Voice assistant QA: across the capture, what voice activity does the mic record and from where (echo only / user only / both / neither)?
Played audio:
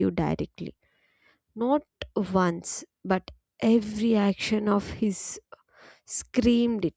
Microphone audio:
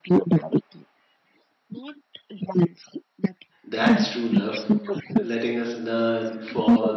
both